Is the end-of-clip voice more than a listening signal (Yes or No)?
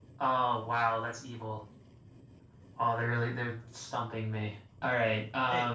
Yes